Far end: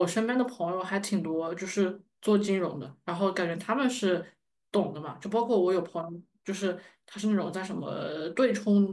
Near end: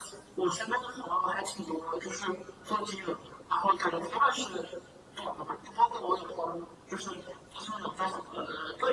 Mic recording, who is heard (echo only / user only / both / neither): echo only